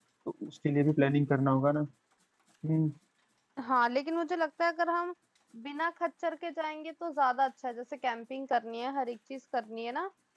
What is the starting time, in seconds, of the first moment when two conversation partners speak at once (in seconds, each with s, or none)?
none